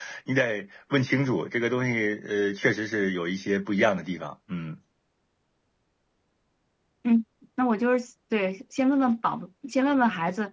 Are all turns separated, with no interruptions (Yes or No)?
Yes